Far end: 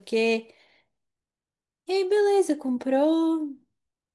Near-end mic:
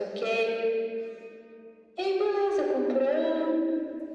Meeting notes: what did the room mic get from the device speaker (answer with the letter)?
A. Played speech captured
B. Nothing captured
A